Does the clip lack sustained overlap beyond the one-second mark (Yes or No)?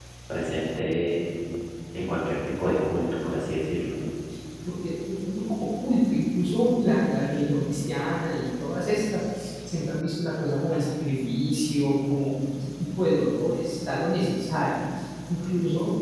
Yes